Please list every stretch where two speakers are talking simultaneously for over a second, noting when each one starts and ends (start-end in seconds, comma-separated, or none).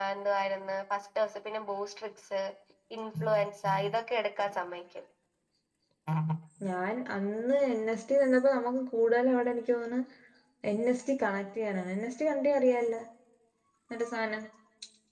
none